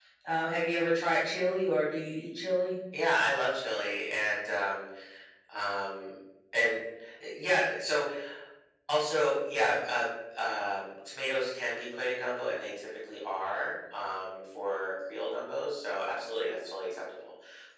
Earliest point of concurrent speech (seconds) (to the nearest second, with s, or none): none